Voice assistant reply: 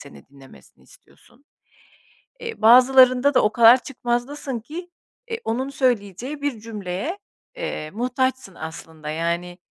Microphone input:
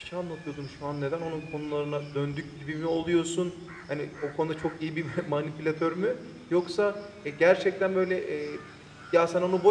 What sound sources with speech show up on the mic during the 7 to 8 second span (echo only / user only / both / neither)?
user only